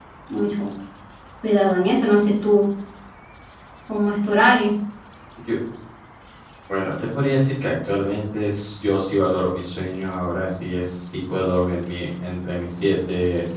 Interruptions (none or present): none